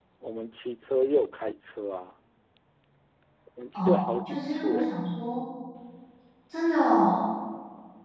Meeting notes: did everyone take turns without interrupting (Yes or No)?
No